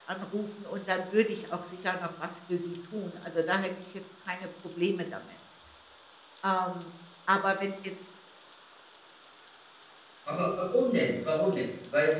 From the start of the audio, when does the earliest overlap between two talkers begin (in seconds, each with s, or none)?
none